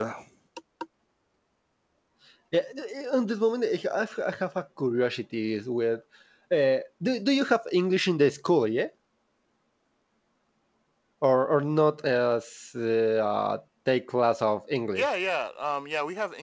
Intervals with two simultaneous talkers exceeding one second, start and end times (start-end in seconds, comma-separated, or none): none